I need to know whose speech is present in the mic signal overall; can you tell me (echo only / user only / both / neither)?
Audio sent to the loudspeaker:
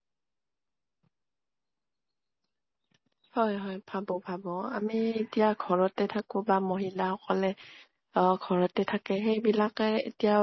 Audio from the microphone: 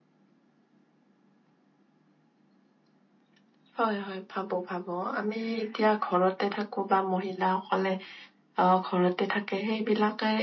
echo only